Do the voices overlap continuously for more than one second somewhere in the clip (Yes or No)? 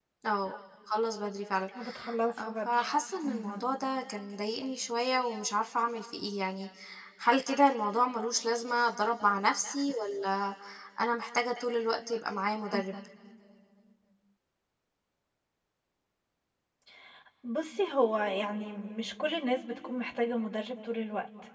No